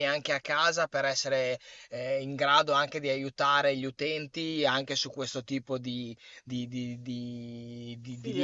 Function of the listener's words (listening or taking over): taking over